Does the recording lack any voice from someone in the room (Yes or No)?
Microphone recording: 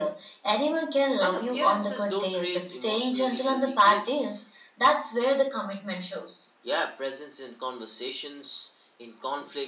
Yes